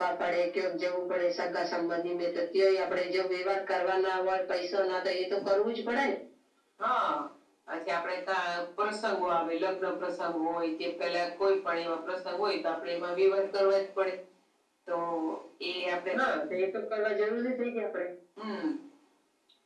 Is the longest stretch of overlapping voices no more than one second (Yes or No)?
Yes